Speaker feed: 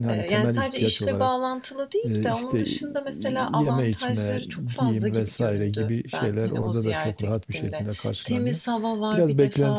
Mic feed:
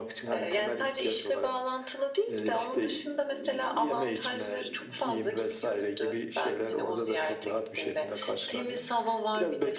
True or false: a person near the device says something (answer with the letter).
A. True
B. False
B